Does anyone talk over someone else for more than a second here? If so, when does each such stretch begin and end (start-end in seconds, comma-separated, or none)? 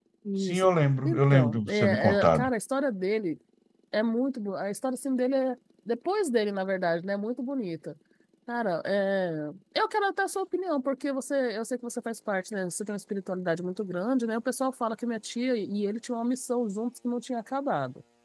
1.0-2.5